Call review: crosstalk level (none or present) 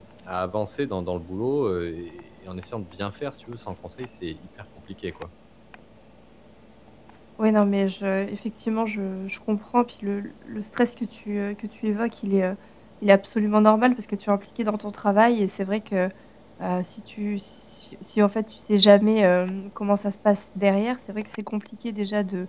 none